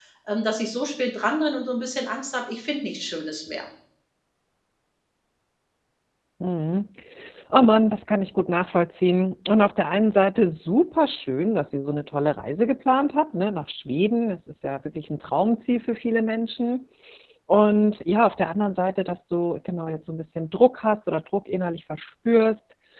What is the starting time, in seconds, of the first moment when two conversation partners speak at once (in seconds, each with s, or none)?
none